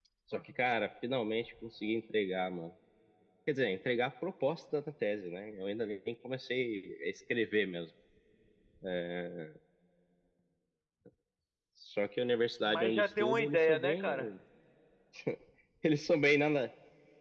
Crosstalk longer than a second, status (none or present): present